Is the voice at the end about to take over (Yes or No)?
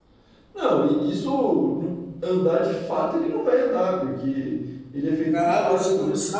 Yes